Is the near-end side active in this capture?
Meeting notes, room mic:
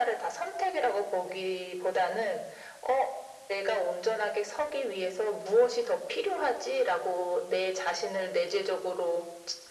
No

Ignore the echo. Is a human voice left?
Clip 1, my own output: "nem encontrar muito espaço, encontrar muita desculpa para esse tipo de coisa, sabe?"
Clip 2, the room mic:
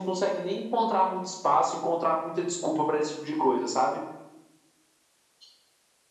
No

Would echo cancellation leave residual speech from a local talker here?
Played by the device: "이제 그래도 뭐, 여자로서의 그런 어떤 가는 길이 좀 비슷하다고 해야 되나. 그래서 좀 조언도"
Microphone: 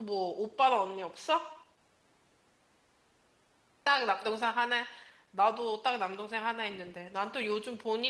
Yes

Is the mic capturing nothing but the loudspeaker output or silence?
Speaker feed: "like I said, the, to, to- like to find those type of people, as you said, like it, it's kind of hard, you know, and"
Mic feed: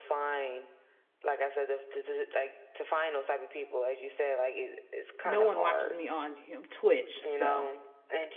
No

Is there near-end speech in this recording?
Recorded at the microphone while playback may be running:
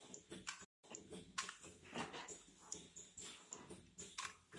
No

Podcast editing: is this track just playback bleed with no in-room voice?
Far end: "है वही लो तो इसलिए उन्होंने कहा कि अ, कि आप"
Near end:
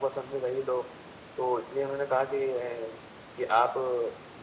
Yes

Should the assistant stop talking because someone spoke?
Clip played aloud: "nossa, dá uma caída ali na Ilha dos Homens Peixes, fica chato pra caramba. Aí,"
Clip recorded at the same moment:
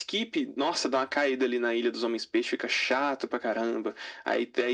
No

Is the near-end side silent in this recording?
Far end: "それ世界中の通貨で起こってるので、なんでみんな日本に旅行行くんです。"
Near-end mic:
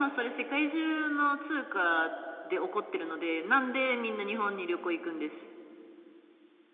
Yes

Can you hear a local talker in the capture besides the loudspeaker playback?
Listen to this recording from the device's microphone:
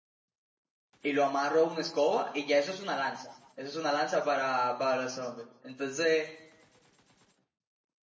Yes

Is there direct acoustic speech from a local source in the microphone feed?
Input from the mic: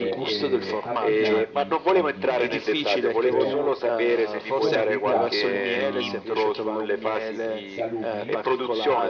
Yes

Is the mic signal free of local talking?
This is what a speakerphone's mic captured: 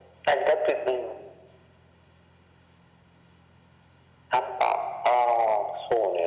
Yes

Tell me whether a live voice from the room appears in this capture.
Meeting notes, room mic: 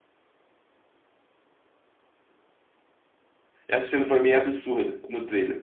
Yes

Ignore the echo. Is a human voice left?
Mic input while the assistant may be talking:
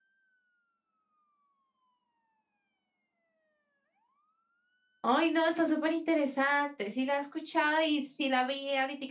Yes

